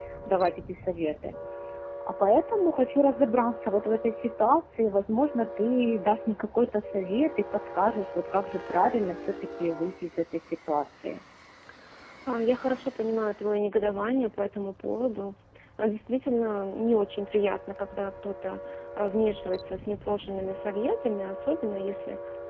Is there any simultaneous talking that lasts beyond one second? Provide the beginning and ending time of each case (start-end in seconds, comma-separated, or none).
none